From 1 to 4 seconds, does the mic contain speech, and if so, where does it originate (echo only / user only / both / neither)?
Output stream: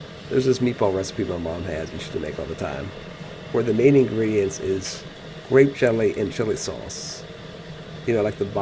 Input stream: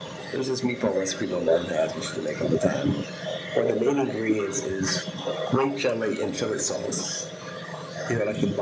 echo only